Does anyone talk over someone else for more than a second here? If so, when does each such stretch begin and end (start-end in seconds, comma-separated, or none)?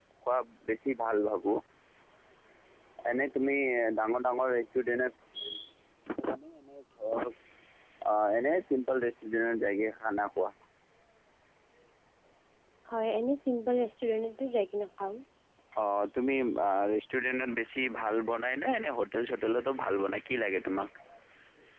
none